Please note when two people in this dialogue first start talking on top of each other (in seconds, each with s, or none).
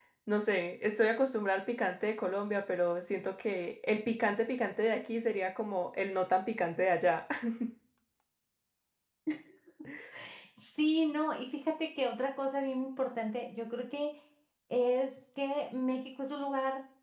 none